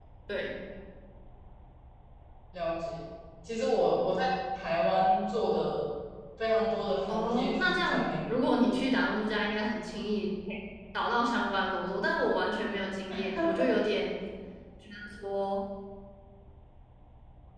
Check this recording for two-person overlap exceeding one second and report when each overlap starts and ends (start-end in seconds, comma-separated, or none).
7.1-8.3